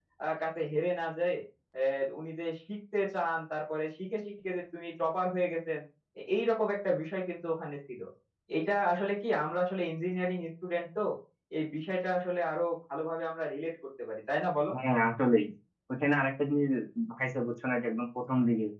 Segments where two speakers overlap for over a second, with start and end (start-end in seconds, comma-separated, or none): none